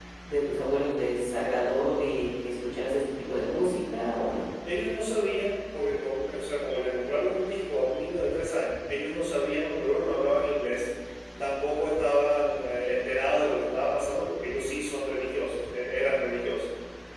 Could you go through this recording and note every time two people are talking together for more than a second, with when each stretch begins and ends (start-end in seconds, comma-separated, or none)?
none